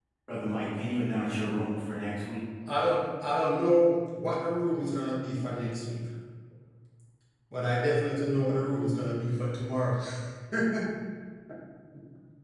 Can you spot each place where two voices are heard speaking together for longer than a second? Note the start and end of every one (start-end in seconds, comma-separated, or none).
none